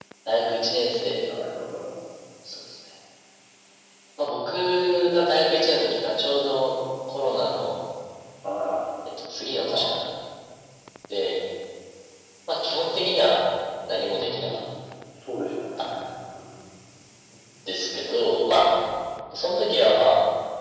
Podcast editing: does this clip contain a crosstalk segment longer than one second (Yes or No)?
No